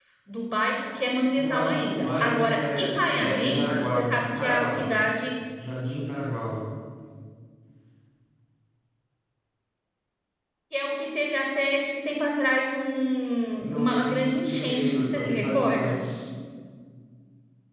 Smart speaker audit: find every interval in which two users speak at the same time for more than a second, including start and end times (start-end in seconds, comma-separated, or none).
1.4-4.9, 13.6-16.0